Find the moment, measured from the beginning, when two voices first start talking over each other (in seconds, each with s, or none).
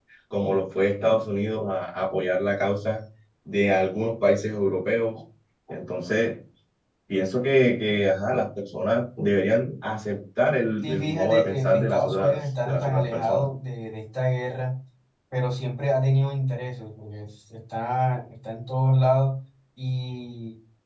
10.8 s